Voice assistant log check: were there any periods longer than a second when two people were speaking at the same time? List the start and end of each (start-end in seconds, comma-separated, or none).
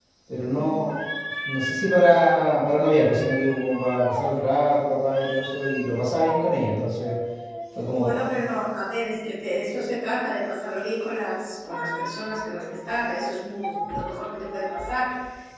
none